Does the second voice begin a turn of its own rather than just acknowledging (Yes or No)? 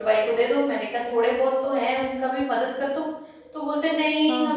No